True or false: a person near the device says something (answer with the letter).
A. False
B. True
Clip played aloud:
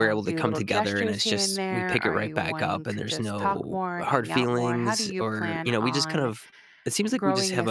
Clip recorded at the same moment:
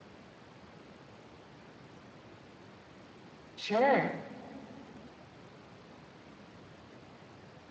B